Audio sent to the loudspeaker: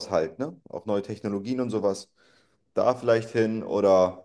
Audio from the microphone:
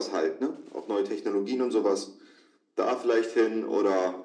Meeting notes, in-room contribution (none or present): none